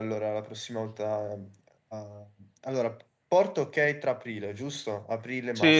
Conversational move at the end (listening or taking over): taking over